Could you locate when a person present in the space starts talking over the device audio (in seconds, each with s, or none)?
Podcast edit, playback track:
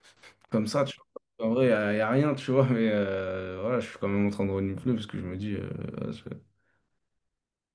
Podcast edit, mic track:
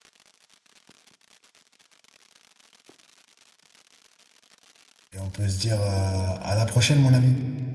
5.1 s